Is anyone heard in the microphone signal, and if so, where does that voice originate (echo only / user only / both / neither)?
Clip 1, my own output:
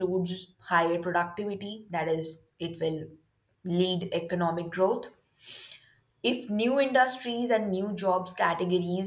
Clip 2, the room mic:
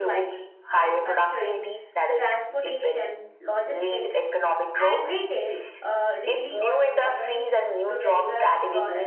both